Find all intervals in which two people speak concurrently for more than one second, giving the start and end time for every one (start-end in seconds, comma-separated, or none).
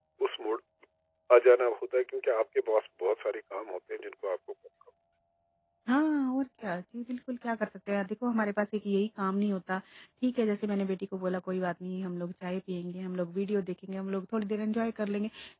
none